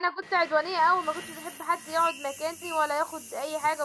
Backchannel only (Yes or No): Yes